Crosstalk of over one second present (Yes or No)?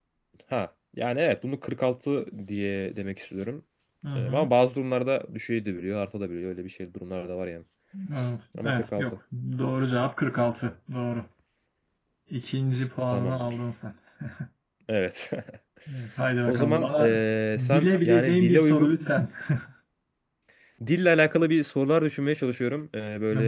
Yes